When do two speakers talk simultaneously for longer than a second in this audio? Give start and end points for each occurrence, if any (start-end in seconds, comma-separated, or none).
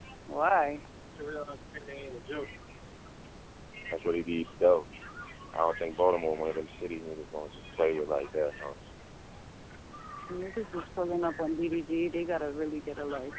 none